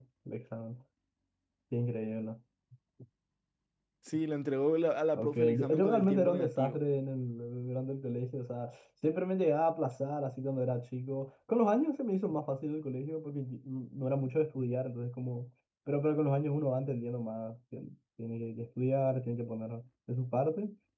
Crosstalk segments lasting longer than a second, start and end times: 5.2-6.8

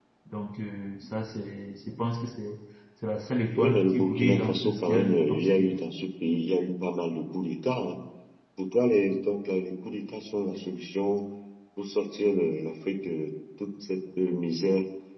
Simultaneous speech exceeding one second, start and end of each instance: 3.6-5.8

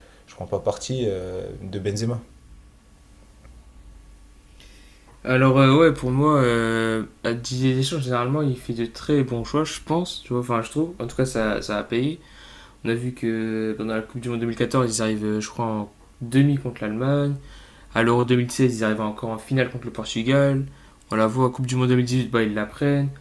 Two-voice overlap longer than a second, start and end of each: none

